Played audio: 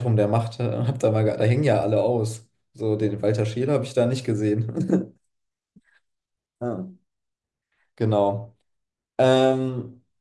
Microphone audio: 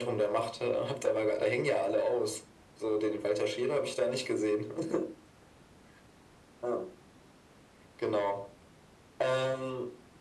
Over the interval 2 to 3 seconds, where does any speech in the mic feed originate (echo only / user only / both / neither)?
echo only